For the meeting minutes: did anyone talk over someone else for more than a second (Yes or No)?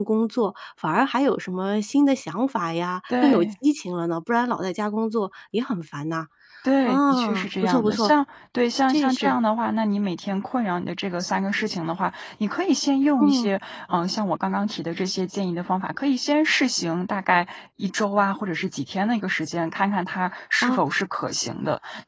Yes